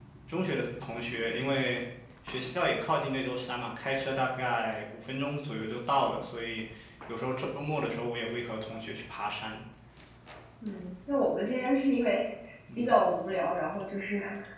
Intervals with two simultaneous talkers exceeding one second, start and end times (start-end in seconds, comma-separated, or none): none